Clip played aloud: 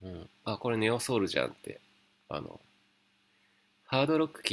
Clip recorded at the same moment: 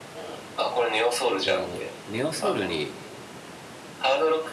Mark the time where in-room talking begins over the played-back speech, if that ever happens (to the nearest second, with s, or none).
1 s